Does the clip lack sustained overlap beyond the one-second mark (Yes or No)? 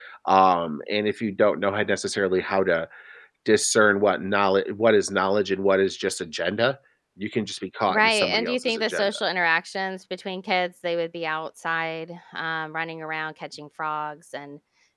No